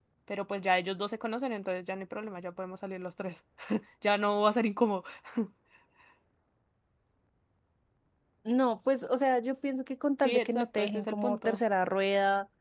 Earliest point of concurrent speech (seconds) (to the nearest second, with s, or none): 10 s